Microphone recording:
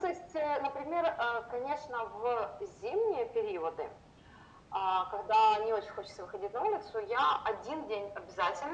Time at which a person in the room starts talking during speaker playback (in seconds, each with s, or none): none